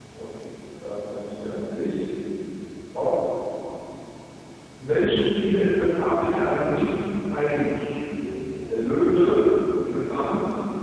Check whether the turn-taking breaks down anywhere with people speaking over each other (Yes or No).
No